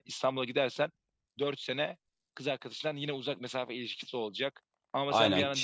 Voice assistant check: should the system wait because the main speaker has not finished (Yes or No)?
No